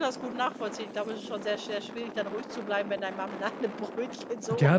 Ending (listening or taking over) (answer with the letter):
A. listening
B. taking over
B